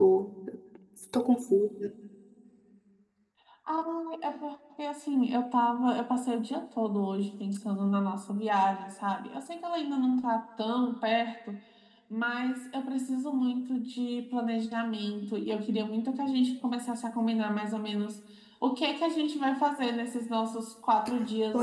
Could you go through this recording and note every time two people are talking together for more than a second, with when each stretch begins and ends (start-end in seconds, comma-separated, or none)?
none